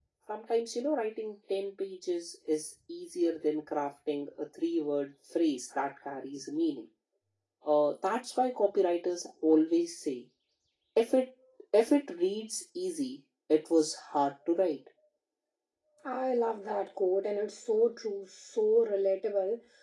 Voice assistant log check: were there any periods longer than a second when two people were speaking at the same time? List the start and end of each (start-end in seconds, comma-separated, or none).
none